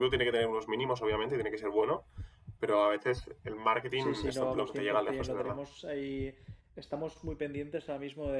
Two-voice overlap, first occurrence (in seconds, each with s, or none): 4.0 s